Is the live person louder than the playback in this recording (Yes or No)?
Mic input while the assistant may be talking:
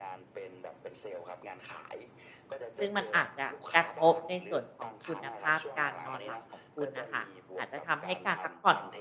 Yes